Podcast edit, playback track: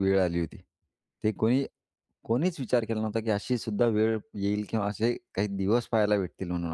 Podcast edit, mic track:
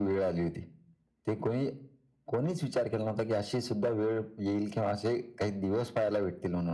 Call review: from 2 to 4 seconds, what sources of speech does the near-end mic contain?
echo only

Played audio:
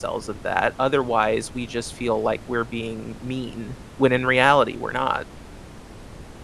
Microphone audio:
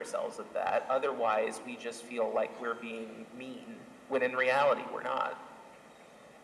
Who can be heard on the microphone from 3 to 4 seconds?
echo only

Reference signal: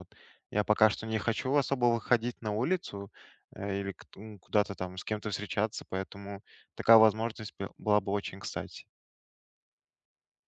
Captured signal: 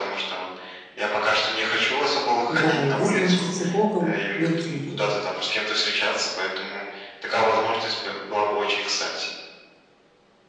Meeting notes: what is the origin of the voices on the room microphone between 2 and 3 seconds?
both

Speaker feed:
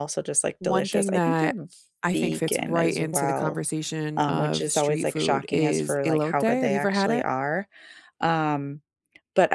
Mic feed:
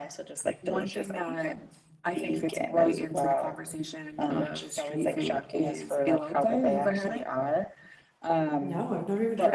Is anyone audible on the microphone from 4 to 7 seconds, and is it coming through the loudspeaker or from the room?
echo only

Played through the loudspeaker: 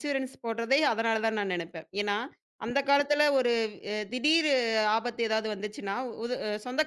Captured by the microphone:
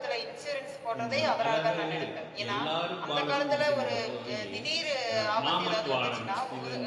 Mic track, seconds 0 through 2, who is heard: both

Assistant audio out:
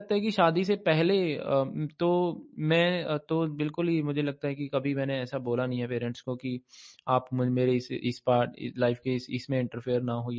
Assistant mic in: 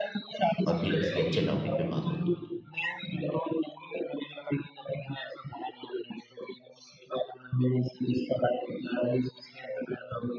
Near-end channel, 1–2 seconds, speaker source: both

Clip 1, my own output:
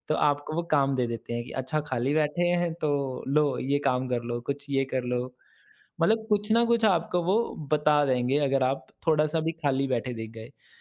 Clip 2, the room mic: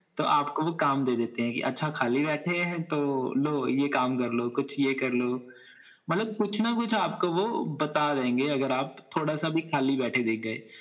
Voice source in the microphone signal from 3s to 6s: echo only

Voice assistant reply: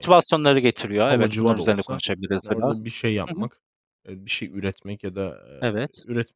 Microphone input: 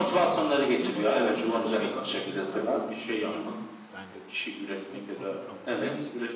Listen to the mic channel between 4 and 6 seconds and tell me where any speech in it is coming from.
both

